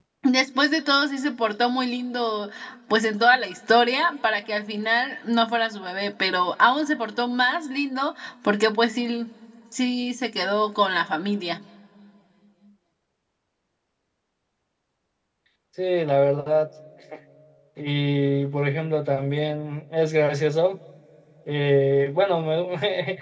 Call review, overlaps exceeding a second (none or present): none